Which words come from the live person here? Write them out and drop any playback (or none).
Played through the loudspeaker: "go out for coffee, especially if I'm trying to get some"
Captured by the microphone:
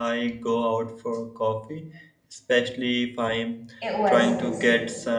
It was busy,